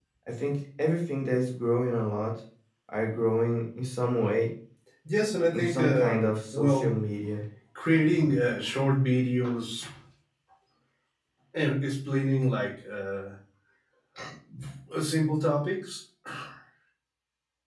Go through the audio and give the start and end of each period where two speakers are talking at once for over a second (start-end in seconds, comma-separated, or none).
5.5-7.0